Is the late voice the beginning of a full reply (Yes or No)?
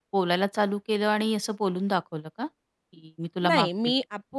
Yes